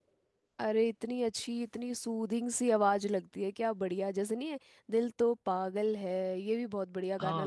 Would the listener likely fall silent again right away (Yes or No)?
No